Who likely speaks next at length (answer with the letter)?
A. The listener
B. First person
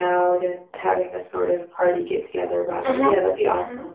A